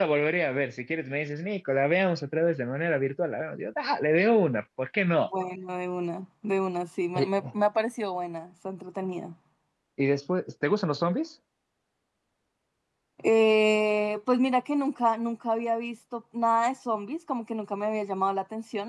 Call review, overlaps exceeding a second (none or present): none